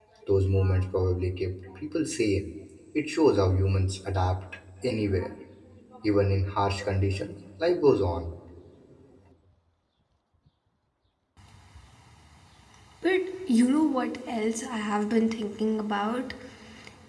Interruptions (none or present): none